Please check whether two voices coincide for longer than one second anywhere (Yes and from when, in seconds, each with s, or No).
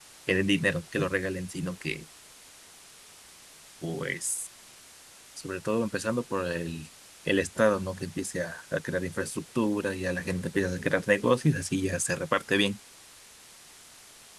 No